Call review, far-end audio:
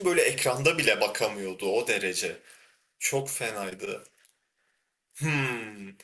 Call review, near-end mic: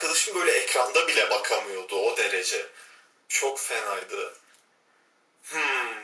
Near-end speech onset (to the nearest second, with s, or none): none